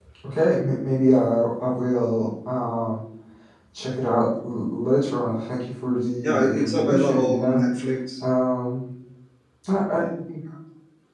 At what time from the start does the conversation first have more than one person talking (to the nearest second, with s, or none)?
6 s